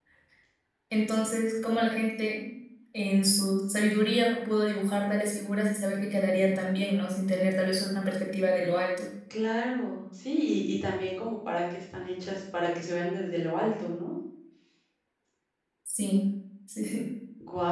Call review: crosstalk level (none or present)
none